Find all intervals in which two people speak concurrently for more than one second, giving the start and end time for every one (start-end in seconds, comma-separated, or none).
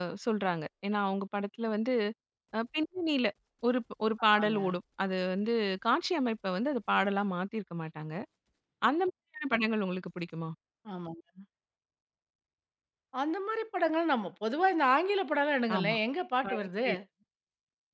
none